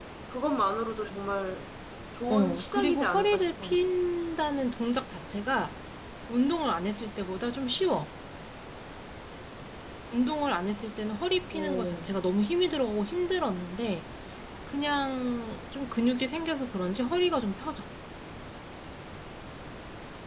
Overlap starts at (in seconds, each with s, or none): 2.3 s